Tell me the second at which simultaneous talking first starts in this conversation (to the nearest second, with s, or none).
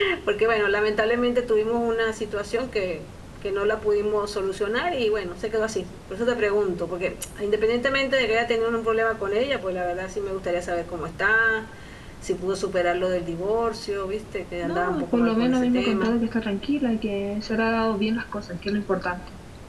15 s